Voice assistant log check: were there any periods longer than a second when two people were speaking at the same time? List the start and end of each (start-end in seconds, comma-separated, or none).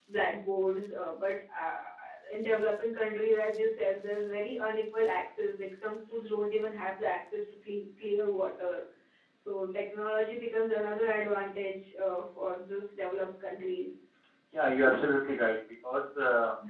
none